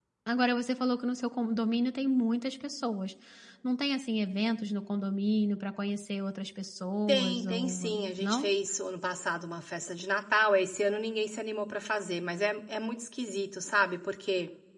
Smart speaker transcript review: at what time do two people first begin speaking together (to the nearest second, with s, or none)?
7 s